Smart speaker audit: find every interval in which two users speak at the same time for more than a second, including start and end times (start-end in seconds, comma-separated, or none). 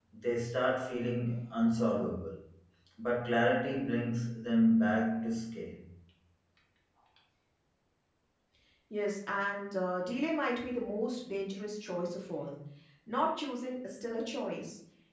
none